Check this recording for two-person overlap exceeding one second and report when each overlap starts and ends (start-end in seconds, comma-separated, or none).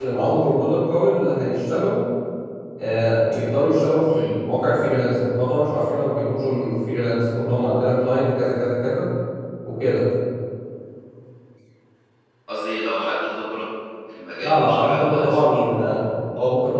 14.4-15.7